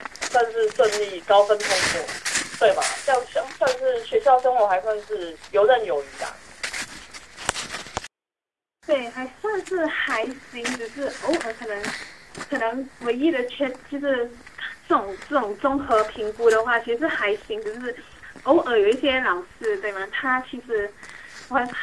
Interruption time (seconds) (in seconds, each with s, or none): none